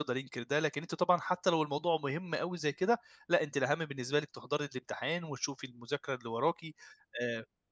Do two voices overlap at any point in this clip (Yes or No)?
No